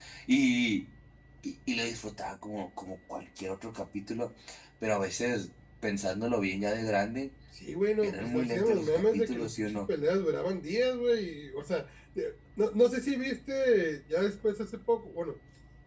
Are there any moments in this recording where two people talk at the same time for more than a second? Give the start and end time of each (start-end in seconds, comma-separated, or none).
8.0-9.8